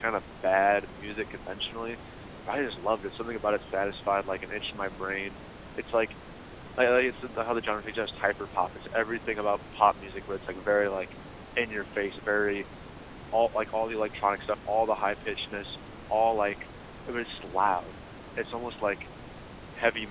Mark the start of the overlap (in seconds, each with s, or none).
none